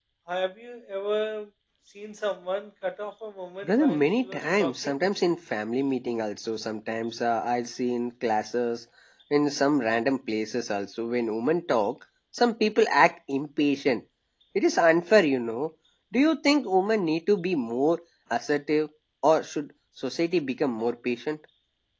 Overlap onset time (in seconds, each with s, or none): 3.6 s